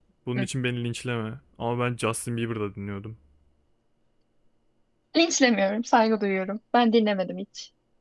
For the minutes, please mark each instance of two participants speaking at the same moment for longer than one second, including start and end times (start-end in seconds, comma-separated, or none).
none